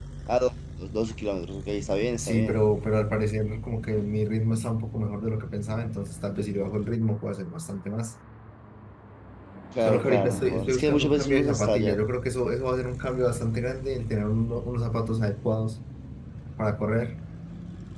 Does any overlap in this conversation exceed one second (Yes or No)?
Yes